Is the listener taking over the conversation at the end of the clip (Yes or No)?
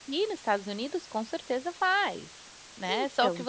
No